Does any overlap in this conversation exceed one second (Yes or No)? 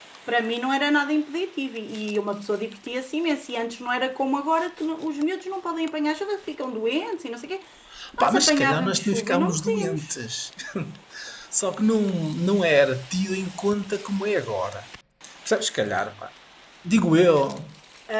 Yes